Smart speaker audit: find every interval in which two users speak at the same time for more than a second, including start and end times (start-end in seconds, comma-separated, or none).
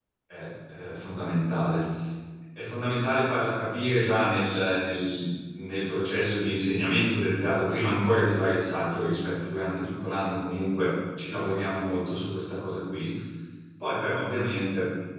none